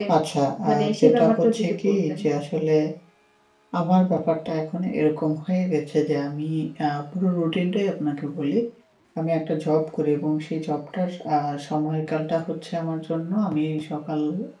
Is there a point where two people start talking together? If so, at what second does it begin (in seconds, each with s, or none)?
0.7 s